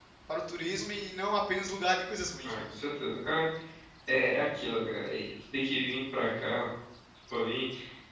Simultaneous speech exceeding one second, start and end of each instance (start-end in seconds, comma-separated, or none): none